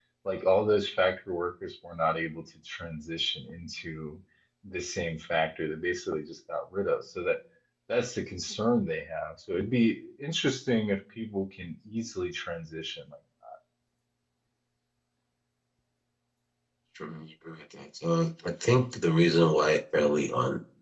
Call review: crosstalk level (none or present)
none